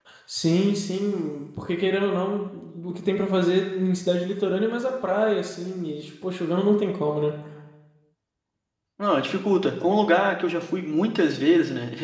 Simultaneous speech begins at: none

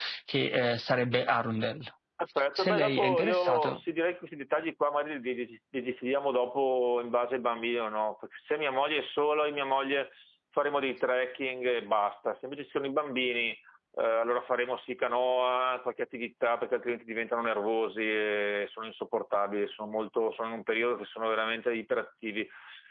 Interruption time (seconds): 3 s

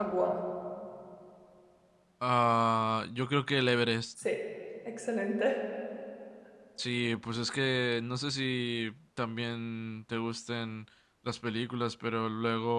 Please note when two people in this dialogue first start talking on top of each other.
none

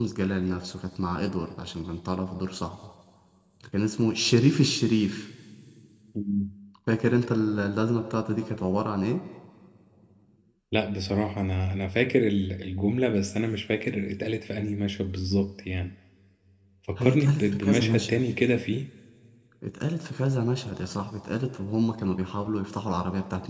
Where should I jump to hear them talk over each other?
17 s

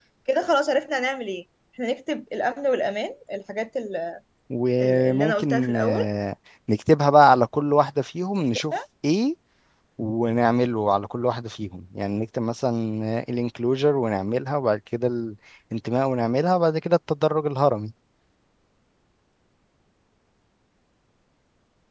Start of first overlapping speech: 5 s

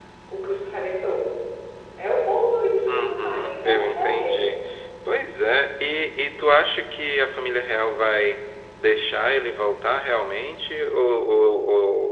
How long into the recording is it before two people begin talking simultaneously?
3 s

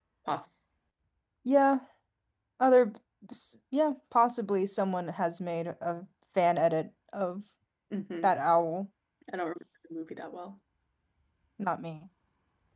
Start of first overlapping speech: none

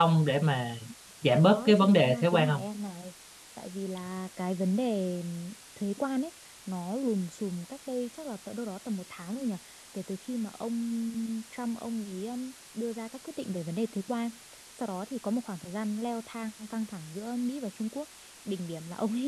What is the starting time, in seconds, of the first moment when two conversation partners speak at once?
1 s

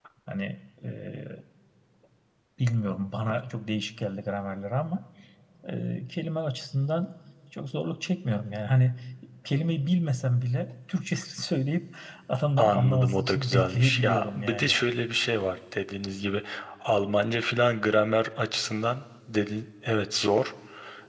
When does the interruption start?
13 s

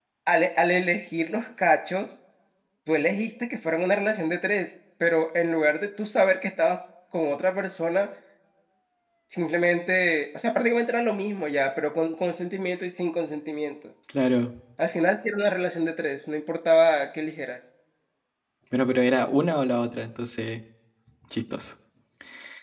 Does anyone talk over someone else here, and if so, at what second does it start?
none

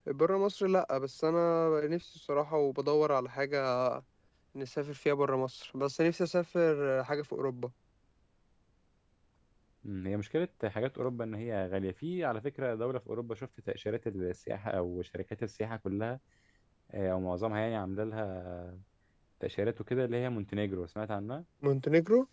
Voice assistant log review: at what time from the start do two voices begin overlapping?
none

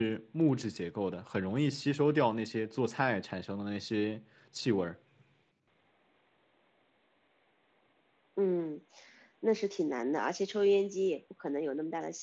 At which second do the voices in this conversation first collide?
none

